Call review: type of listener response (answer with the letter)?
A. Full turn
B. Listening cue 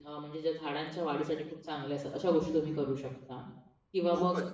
A